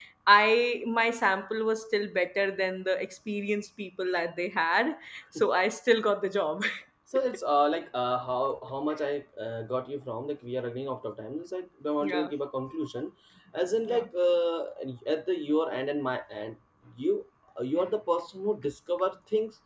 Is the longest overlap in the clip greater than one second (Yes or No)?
No